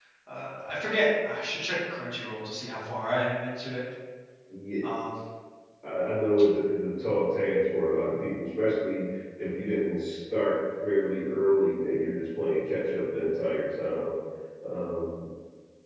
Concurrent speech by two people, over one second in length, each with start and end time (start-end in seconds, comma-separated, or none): none